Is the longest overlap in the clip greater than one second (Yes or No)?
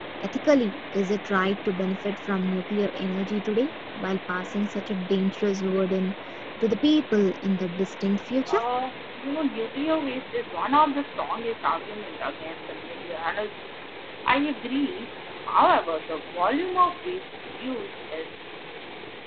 No